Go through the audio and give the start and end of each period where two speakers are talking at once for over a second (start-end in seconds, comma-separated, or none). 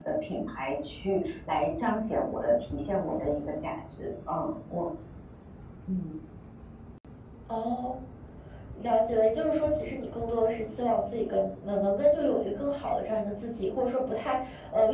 none